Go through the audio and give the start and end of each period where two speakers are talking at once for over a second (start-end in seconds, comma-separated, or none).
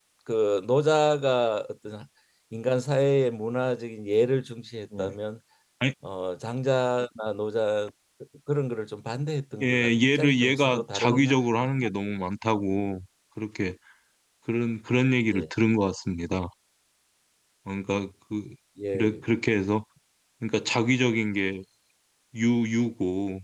9.6-11.3